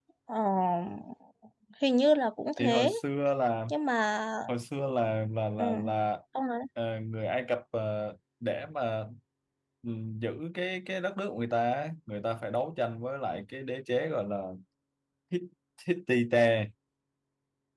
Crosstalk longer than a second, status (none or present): none